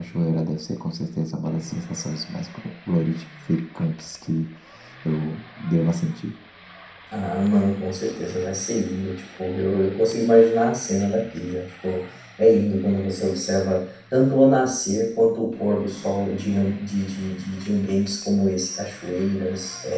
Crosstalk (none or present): none